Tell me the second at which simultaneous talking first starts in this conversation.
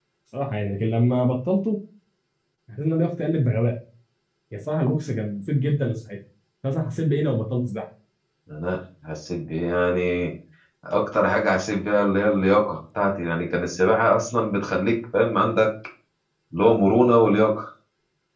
none

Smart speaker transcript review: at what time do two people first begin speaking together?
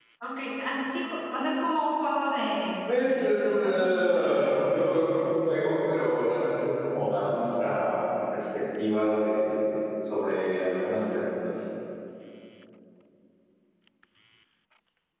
2.9 s

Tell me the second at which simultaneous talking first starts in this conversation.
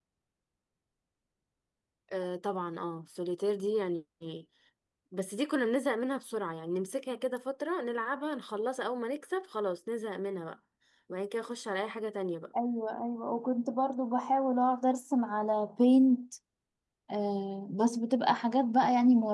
none

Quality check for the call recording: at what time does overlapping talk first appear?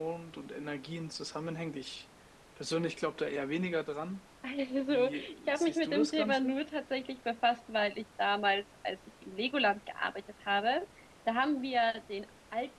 4.9 s

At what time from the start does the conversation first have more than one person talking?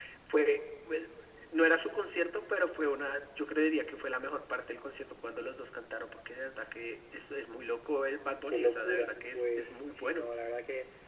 8.5 s

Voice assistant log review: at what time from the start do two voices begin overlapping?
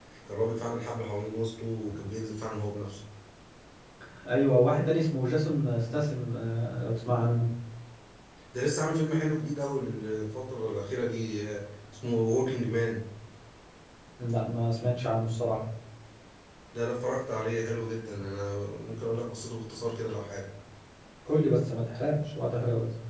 none

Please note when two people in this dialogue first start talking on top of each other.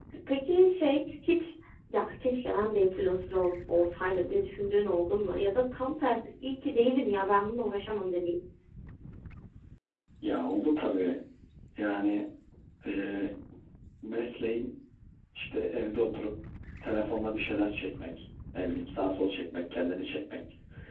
none

